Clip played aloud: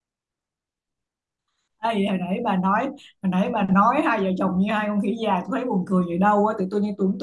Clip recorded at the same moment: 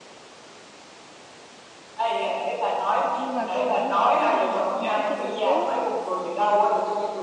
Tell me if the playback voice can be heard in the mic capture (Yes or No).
Yes